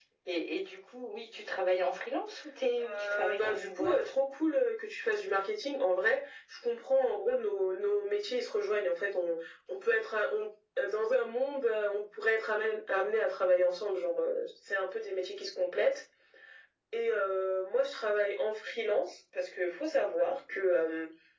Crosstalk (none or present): present